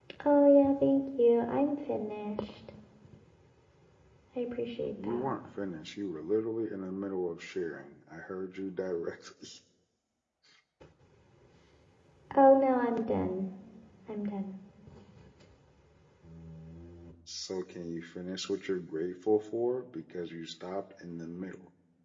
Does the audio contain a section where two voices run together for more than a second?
No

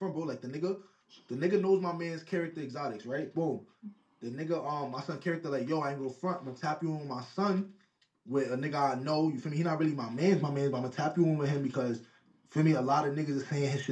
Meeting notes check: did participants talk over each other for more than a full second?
No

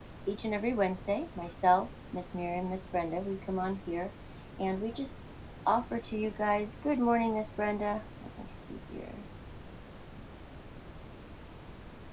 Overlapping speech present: No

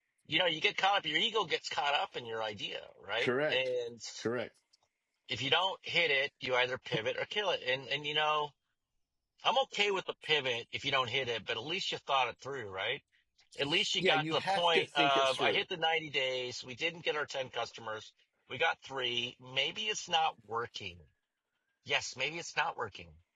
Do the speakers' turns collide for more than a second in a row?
Yes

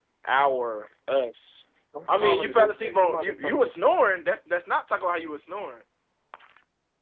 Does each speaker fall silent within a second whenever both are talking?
No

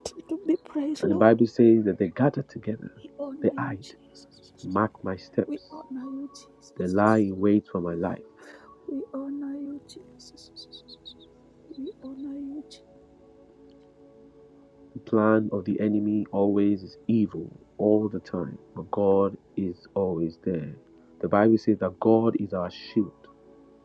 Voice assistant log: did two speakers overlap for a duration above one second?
No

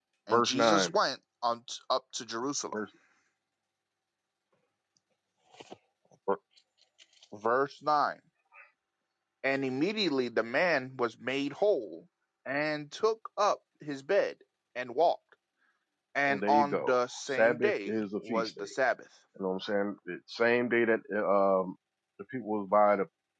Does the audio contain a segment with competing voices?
Yes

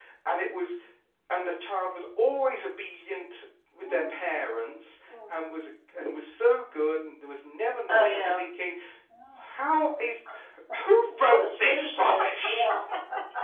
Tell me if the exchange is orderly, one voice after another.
No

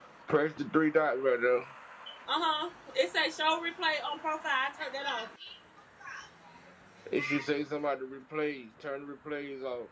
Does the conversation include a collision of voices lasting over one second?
No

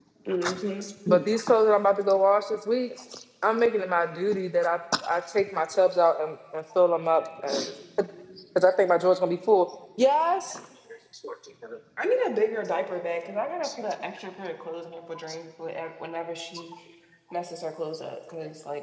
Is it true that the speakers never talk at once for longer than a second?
Yes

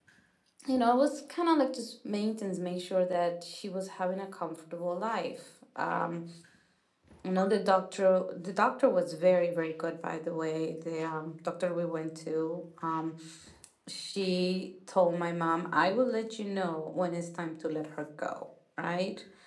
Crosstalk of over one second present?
No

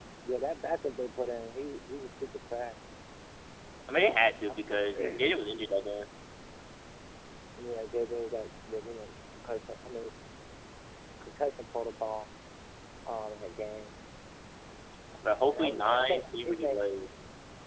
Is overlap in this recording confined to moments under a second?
No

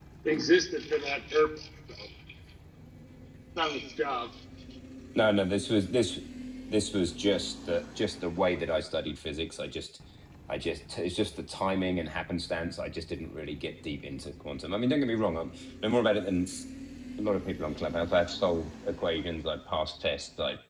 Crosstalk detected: No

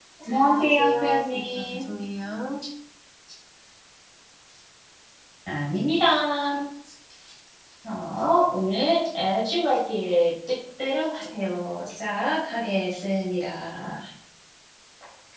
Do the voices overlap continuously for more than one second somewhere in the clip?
Yes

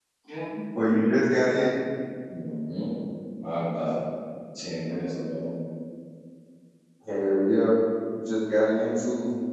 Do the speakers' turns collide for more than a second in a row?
No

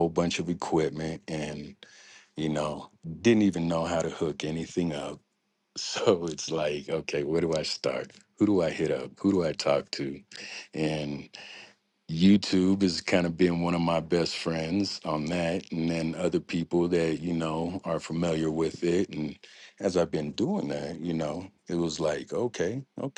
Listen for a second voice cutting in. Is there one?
No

